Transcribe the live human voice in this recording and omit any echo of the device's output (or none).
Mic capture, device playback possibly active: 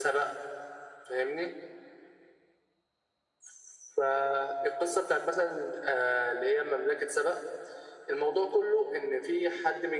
none